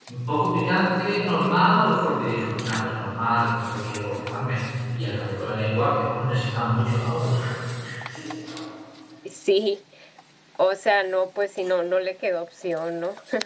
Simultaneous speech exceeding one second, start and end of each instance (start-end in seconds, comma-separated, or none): none